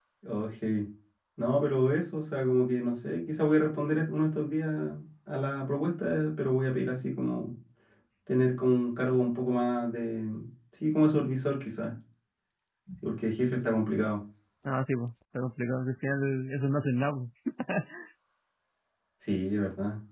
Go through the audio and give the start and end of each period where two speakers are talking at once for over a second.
none

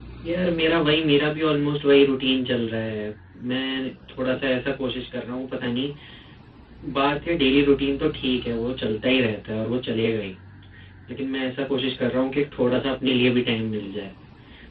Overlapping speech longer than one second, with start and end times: none

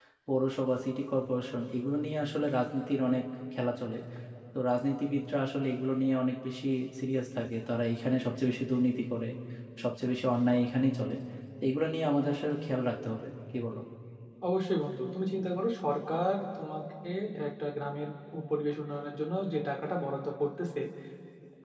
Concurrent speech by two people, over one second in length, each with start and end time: none

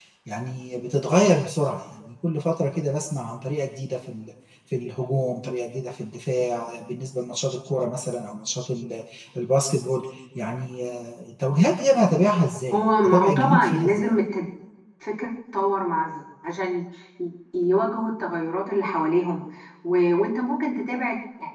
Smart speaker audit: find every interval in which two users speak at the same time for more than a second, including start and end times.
12.7-14.1

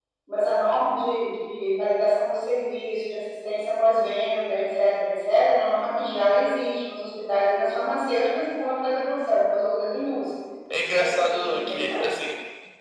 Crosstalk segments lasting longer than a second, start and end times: 10.7-12.0

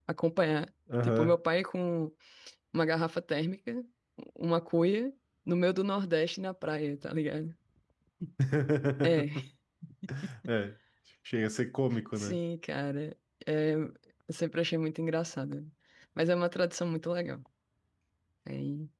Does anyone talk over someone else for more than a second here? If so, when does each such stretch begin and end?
none

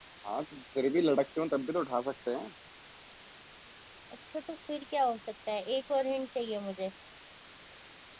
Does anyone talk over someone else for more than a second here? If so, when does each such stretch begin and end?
none

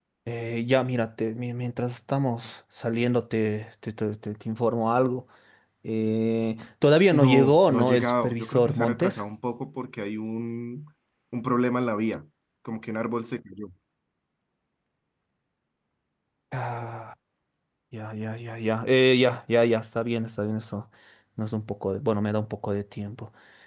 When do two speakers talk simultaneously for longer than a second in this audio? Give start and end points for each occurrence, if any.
7.1-9.2

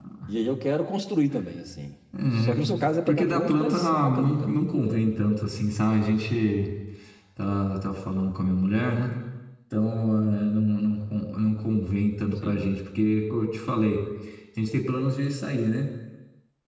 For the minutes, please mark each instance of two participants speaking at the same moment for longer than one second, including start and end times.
3.0-4.5

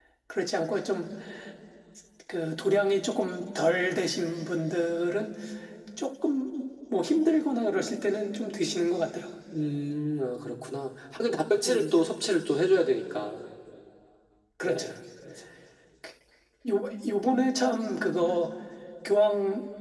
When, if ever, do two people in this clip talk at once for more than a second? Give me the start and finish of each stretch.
none

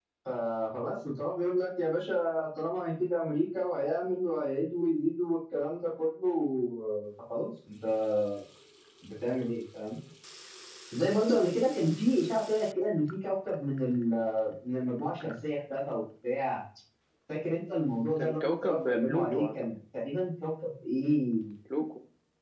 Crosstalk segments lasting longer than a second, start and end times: 18.2-19.4

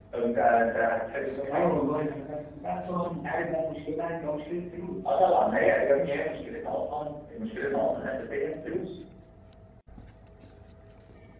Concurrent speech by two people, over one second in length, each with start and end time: none

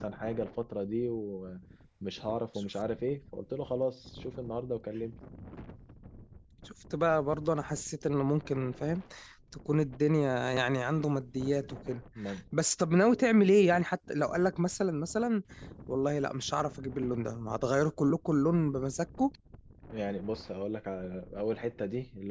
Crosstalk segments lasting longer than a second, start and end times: none

